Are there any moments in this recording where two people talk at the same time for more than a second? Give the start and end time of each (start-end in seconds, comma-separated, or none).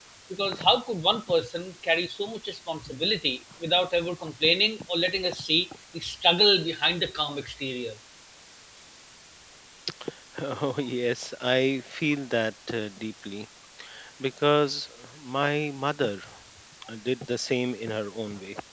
none